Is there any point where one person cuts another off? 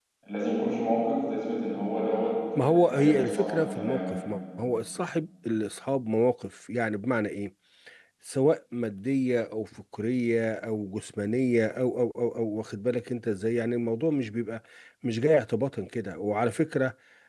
Yes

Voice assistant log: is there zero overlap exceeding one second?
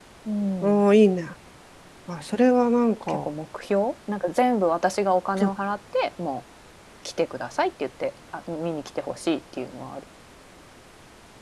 Yes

